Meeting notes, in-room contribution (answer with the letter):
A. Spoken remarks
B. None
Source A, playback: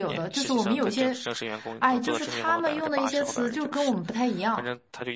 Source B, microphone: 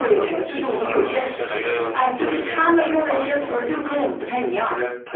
A